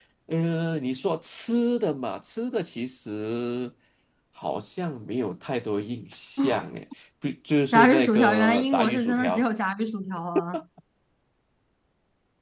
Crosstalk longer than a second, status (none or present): present